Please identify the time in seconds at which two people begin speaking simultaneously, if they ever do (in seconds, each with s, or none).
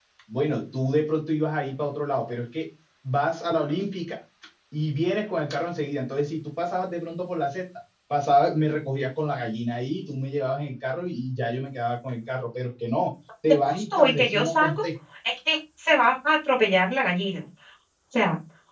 13.7 s